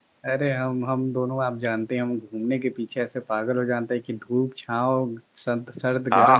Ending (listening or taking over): taking over